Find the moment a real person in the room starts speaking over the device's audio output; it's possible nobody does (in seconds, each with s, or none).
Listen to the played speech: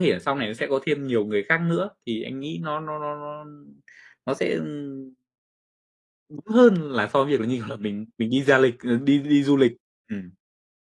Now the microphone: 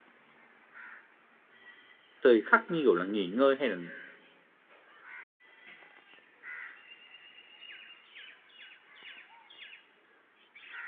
2.2 s